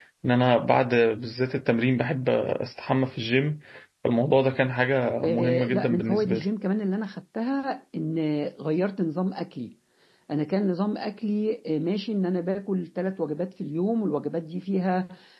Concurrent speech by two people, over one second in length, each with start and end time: 5.2-6.4

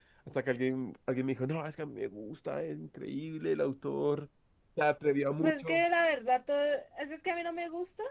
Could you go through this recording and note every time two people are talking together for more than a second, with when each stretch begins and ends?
none

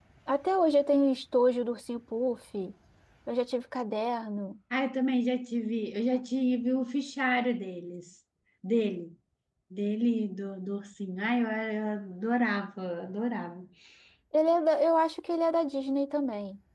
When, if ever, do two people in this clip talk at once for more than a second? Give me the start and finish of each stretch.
none

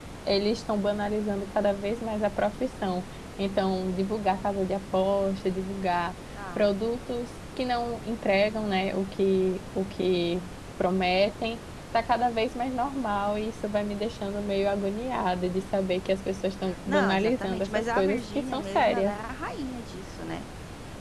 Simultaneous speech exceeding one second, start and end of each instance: 16.9-19.2

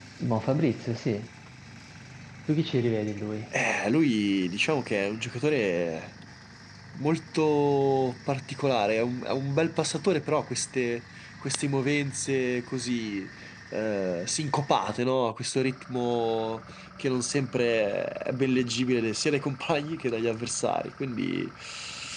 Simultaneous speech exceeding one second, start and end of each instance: none

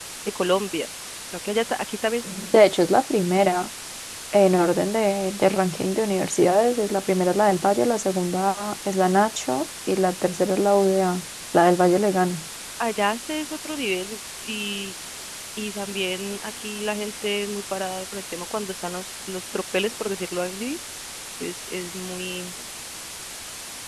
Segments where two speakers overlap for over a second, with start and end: none

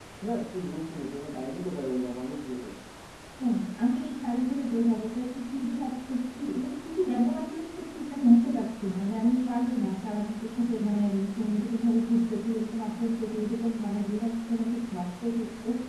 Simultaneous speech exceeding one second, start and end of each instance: none

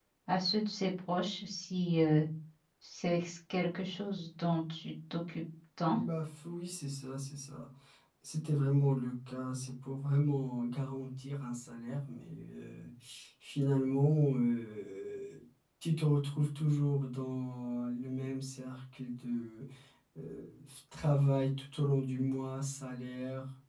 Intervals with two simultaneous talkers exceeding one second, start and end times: none

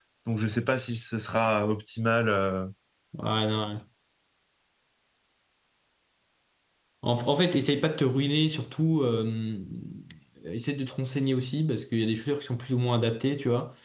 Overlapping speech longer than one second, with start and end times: none

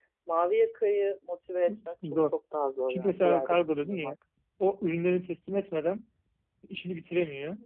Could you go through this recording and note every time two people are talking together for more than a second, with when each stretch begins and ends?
2.9-4.1

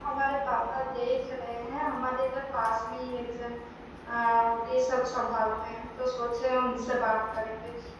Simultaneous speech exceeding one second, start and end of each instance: none

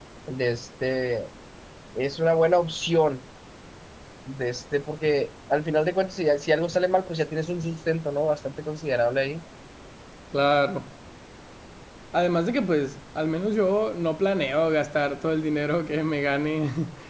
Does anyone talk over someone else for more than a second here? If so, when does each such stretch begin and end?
none

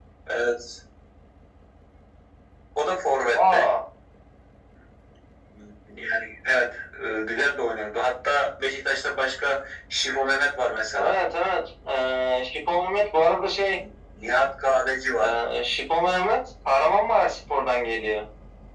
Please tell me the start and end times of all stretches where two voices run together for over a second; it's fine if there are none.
none

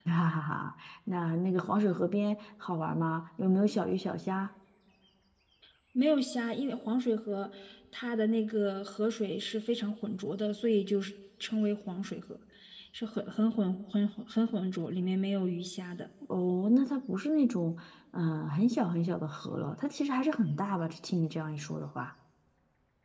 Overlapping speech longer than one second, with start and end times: none

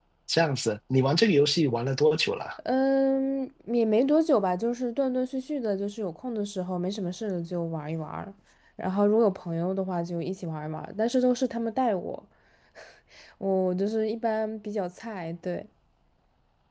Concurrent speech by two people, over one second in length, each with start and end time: none

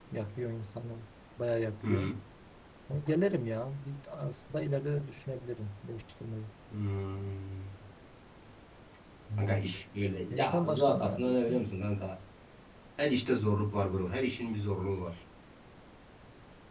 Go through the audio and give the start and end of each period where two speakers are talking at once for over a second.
10.3-11.7

